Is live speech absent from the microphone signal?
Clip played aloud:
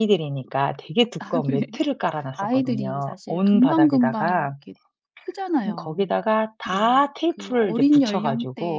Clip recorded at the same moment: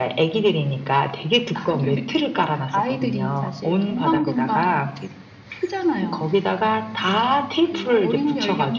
Yes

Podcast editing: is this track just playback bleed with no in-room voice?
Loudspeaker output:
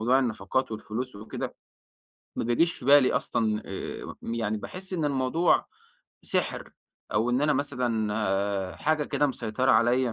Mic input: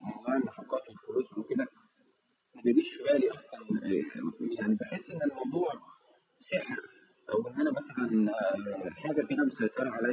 Yes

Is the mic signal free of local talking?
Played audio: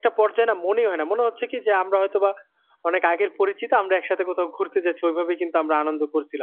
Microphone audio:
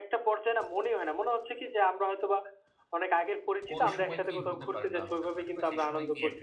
No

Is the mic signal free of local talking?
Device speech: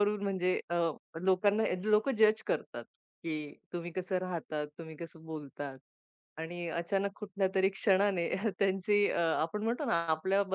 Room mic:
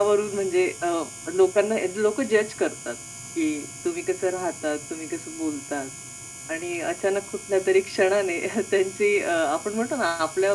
Yes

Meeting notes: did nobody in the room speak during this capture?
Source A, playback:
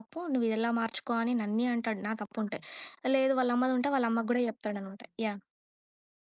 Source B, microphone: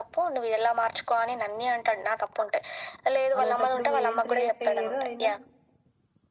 No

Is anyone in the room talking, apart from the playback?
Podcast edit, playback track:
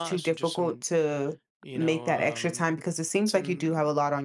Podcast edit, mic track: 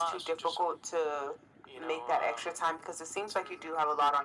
No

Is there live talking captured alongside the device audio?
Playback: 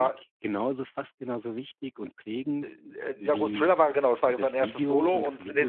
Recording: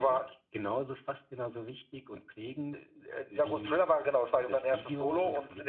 No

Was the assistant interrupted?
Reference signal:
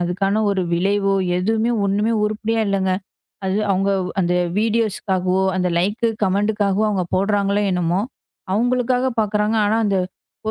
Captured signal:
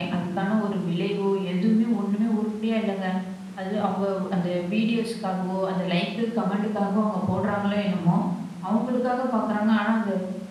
No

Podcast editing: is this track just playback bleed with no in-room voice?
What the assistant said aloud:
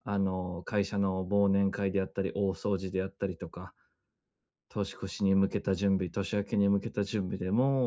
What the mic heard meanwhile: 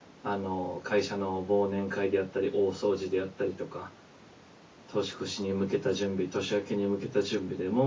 Yes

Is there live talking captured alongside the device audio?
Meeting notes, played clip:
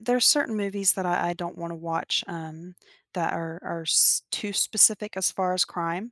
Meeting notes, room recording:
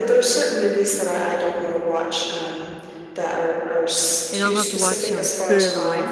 Yes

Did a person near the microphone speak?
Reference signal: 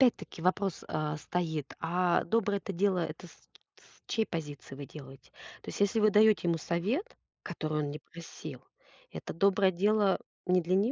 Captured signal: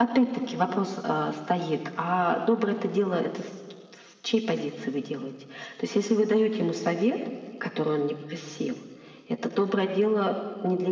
No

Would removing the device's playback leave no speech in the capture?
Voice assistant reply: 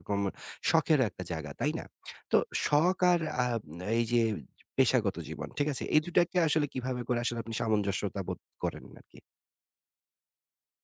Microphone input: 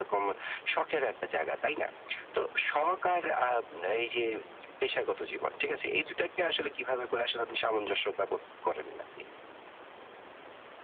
Yes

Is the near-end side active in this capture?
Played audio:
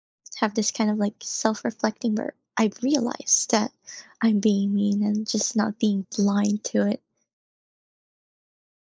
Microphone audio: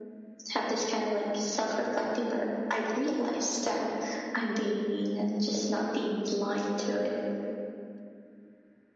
No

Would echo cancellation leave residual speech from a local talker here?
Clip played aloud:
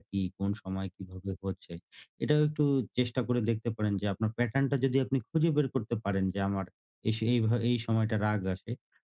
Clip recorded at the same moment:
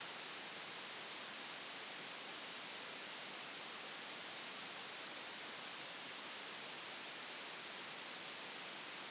No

